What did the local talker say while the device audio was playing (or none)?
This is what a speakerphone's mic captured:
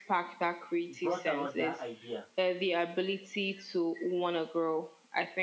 brought about that idea.